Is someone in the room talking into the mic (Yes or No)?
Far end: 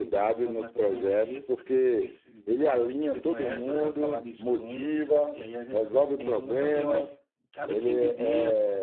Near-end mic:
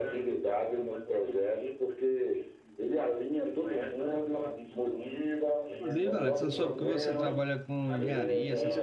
Yes